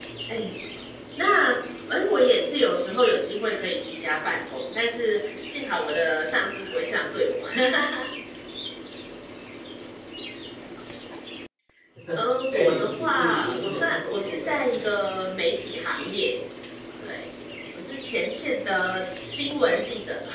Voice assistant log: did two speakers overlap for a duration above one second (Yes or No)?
Yes